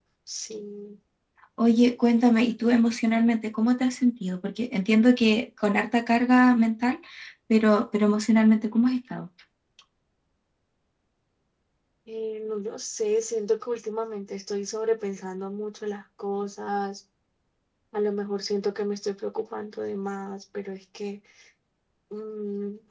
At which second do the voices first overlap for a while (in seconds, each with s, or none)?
none